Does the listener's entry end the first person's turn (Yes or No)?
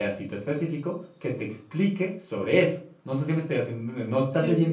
No